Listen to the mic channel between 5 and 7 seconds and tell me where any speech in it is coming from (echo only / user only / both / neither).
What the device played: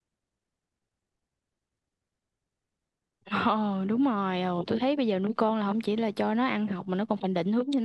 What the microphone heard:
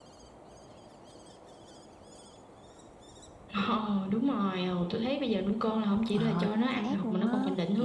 both